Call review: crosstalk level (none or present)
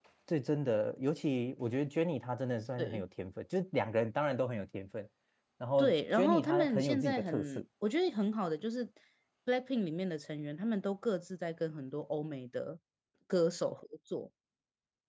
present